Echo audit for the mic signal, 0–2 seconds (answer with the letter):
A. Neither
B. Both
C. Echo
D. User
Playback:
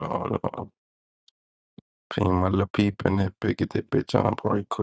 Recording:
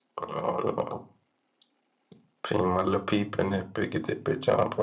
C